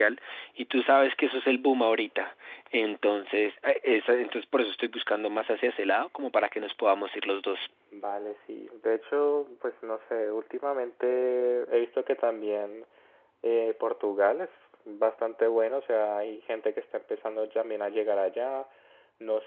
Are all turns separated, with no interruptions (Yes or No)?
Yes